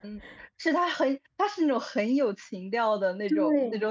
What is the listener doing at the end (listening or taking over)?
taking over